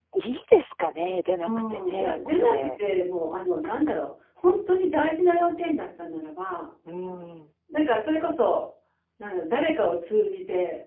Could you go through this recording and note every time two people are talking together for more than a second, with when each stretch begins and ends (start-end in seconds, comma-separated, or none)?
1.4-2.7